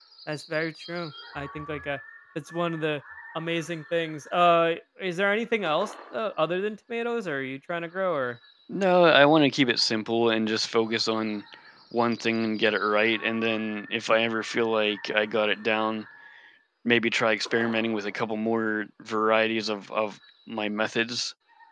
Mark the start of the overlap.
none

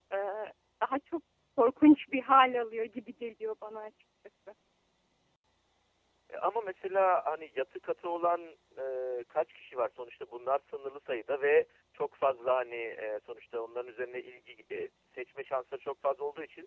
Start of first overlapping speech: none

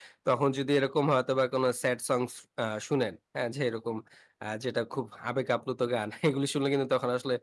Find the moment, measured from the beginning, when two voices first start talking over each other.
none

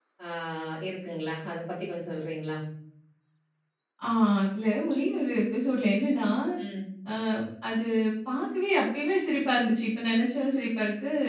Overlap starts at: none

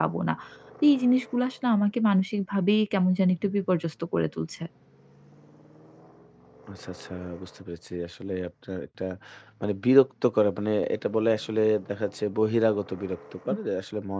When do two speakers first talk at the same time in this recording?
none

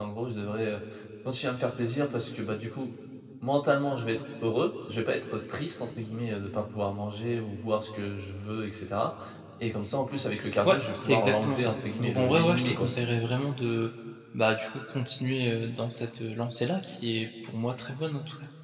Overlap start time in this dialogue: 10.6 s

